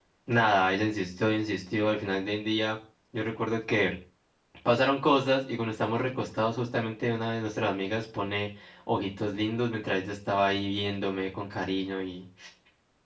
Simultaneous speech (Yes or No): No